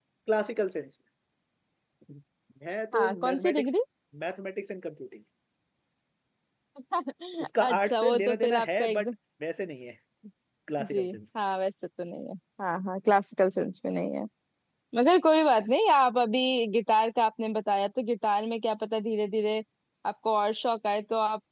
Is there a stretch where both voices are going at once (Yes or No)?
Yes